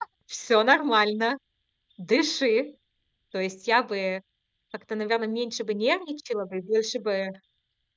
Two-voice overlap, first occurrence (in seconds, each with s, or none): none